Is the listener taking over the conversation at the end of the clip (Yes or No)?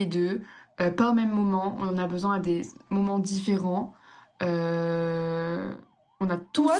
Yes